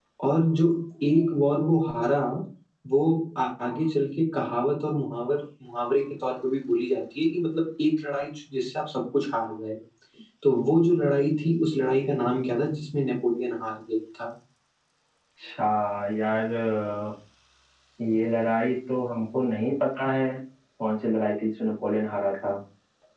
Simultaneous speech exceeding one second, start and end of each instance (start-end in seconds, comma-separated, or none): none